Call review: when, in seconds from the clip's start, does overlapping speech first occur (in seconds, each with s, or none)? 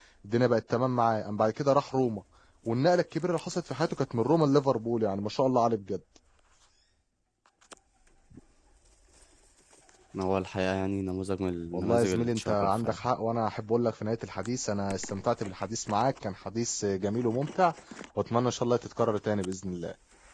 11.7 s